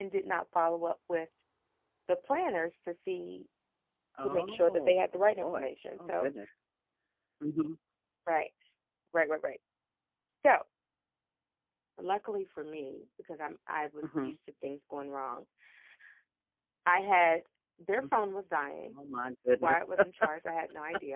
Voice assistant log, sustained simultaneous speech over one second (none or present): present